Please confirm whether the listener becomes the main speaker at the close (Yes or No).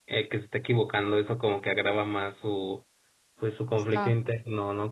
No